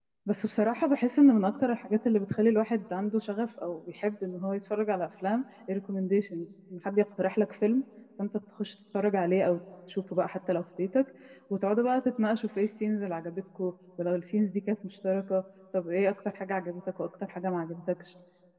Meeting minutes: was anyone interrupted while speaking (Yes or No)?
No